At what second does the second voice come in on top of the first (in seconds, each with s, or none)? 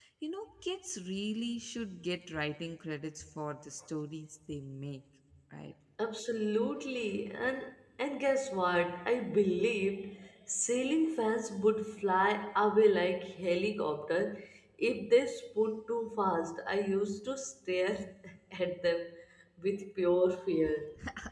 none